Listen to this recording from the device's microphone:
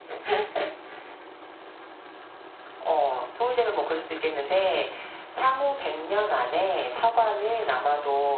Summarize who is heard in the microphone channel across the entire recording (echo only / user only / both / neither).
echo only